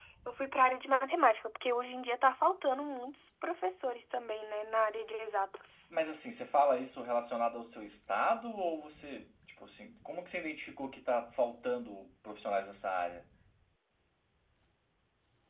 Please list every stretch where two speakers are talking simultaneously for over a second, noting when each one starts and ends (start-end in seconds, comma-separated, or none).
none